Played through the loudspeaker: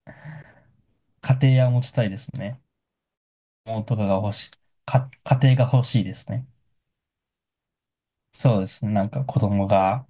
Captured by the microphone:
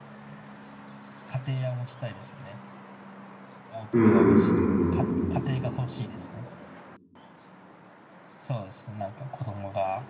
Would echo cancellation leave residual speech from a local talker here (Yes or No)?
Yes